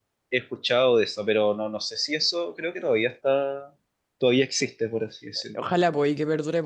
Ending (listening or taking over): taking over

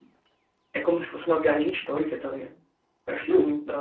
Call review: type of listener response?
taking over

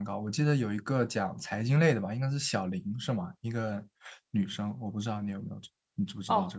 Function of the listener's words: taking over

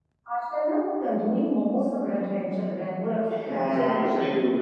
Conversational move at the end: taking over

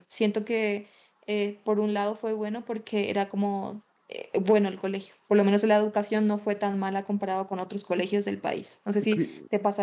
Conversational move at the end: taking over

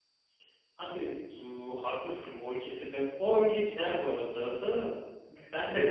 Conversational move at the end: listening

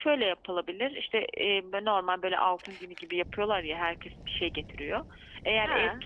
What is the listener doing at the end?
listening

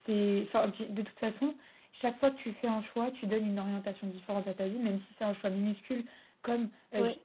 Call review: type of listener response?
listening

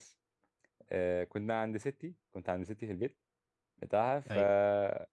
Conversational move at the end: listening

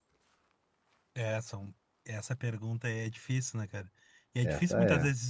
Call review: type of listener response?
listening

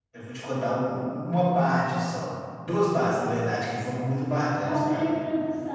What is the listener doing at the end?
taking over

